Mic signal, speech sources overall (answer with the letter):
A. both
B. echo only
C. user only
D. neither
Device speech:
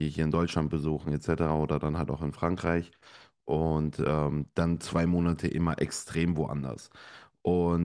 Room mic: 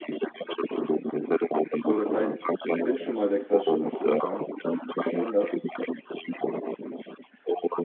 A